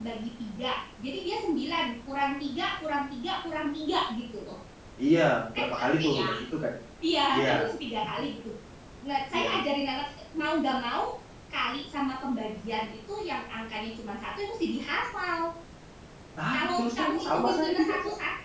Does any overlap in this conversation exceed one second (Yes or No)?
Yes